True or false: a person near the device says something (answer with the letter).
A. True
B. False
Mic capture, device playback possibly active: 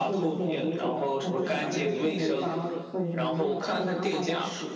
A